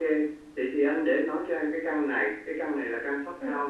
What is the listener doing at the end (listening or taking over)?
listening